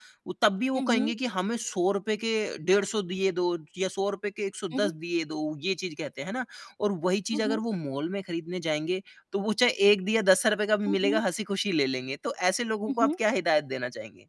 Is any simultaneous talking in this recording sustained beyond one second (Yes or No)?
No